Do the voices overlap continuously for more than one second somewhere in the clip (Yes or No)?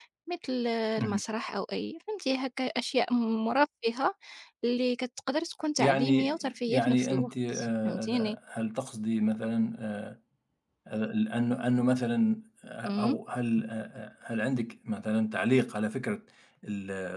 Yes